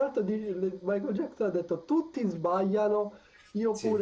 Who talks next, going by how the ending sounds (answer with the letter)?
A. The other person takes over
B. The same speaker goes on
B